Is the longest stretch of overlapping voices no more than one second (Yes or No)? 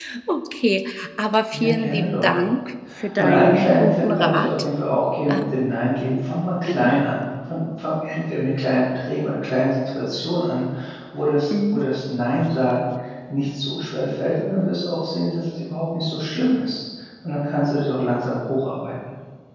No